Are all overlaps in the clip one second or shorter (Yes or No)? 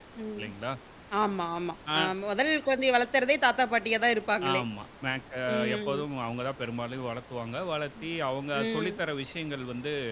Yes